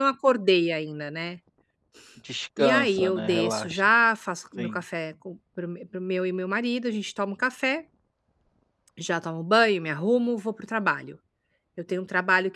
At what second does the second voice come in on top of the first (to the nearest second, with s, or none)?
3 s